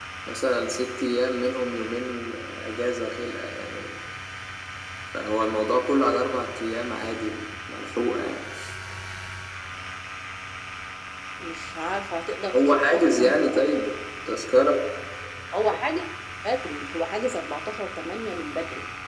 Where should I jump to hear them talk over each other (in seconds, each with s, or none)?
12.5 s